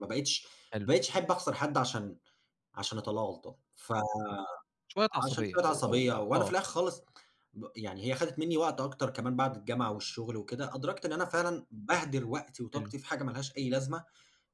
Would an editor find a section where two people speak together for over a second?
Yes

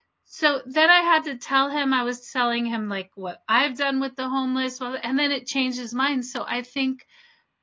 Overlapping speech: No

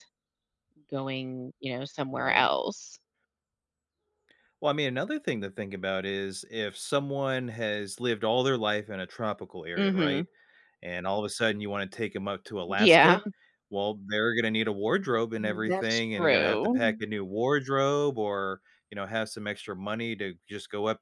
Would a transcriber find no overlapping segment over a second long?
No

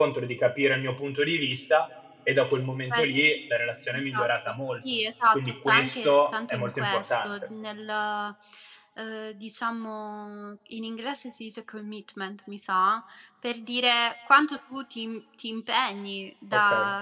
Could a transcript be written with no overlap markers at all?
No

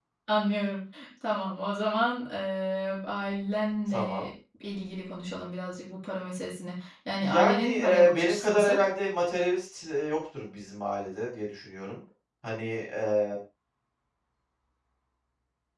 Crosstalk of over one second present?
Yes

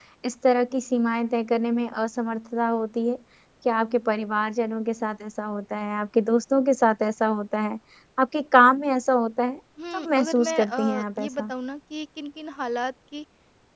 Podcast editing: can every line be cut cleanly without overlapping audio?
No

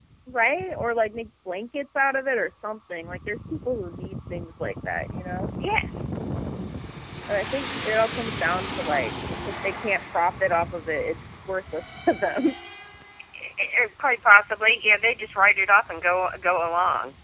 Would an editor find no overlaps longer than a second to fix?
Yes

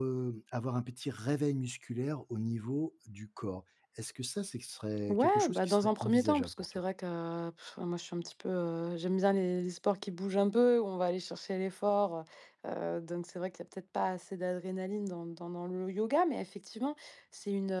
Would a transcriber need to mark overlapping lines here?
Yes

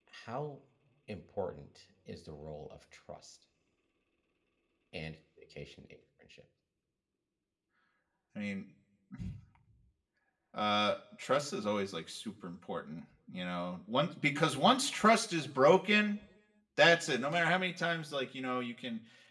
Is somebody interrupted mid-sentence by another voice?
No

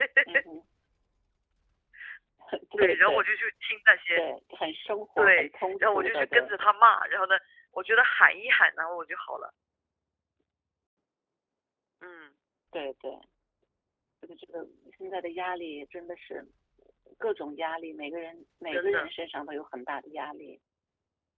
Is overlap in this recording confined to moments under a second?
No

